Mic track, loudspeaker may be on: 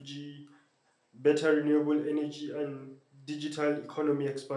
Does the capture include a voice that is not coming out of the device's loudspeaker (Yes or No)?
Yes